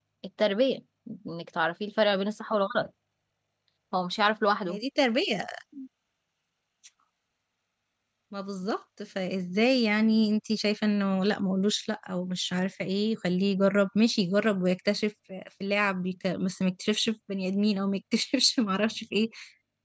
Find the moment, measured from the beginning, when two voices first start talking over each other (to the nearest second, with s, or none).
none